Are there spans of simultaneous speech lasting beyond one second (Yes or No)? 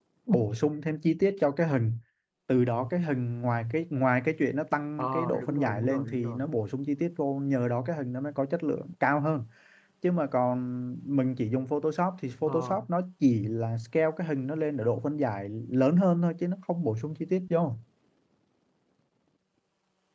Yes